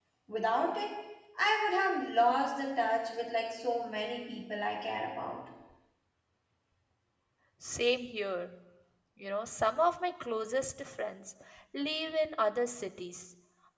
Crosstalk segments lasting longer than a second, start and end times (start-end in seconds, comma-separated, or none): none